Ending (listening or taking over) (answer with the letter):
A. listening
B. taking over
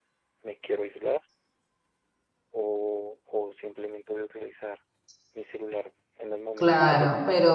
B